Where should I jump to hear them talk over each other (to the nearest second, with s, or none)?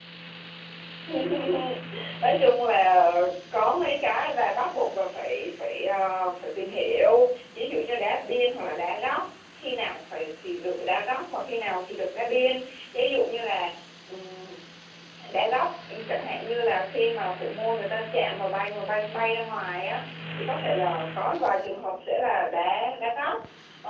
none